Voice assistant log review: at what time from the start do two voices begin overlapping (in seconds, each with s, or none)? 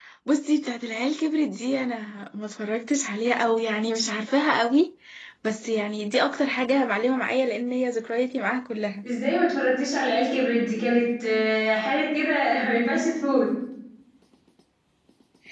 none